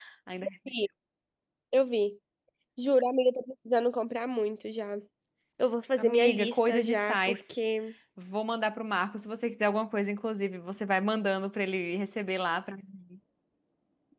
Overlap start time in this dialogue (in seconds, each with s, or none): 6.0 s